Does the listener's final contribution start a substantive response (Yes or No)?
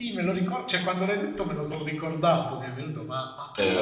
Yes